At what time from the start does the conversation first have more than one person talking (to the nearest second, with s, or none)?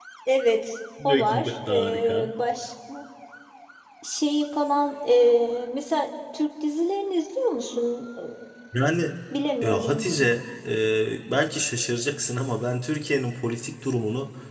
1 s